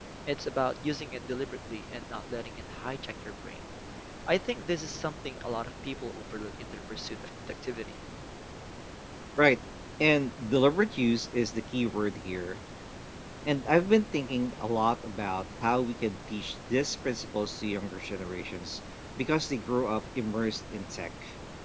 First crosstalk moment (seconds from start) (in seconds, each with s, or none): none